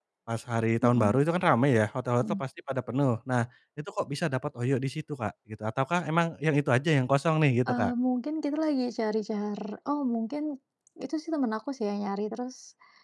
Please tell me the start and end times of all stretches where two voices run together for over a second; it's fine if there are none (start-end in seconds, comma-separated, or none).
none